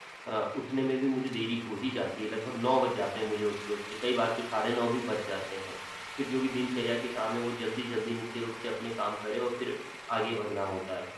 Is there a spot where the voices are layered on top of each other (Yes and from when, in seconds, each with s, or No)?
No